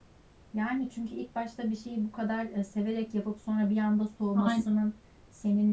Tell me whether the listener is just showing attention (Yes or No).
Yes